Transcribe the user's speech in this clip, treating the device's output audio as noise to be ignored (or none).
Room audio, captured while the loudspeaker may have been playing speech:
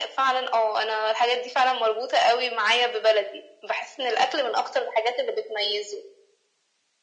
none